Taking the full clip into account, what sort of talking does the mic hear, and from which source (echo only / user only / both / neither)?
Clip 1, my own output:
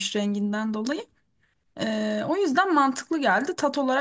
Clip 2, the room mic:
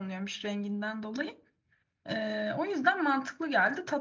echo only